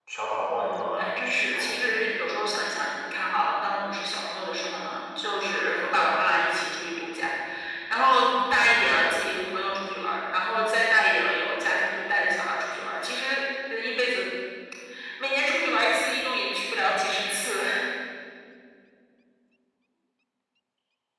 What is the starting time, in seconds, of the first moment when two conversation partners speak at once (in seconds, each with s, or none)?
0.6 s